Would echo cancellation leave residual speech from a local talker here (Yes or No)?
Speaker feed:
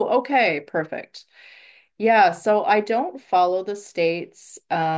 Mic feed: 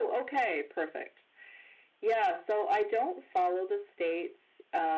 No